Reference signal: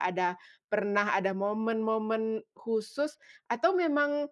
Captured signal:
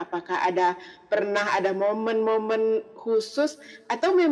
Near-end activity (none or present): none